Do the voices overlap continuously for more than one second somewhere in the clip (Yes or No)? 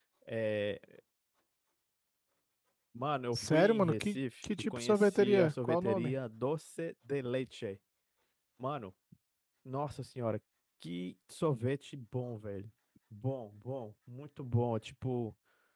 Yes